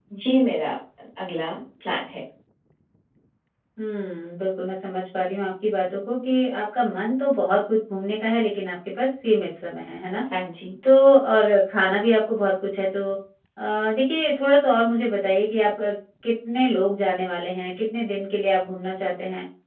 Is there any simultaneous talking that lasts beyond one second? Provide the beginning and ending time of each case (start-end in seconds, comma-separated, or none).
none